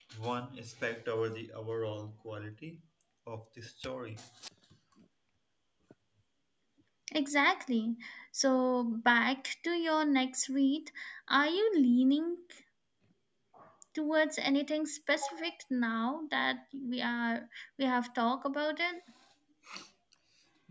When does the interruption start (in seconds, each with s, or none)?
none